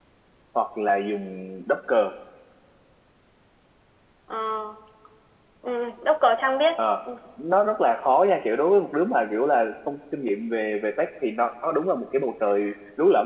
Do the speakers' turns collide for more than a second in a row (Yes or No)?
No